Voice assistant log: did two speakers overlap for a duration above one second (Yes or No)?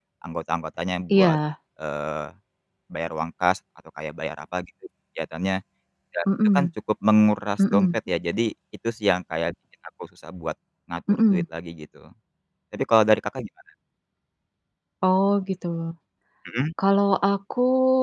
No